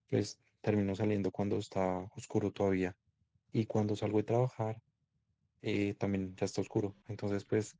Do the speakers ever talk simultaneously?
No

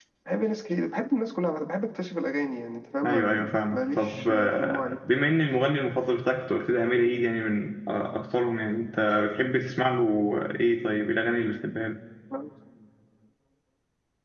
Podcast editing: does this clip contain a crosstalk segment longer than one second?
Yes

